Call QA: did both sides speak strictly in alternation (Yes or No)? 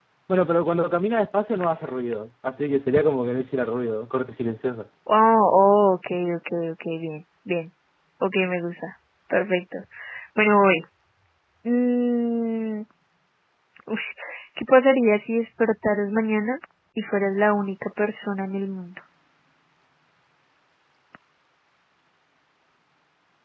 Yes